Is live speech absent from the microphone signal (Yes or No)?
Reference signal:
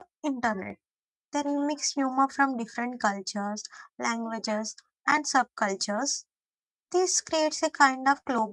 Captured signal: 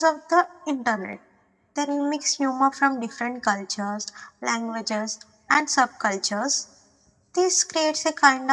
Yes